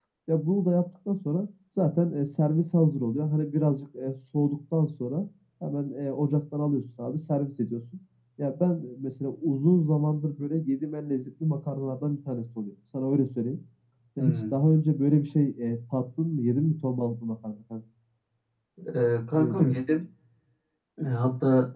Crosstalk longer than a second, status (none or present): none